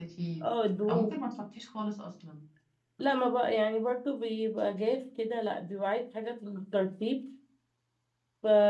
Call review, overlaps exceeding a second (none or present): none